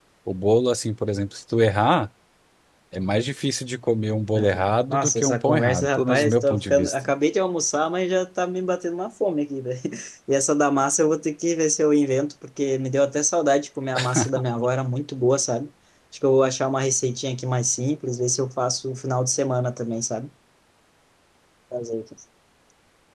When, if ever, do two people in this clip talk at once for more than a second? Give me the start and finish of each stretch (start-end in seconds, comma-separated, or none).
4.4-7.0